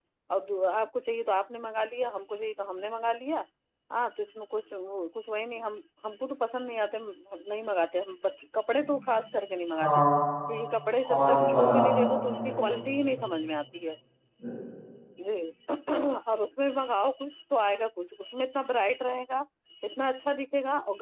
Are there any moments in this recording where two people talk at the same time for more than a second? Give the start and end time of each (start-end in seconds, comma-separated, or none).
11.1-13.1